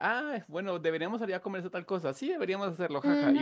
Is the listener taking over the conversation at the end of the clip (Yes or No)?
Yes